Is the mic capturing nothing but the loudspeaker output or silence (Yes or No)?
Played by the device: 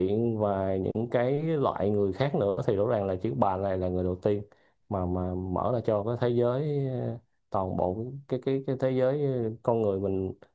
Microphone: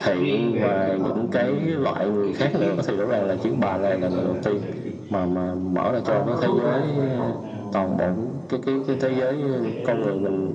No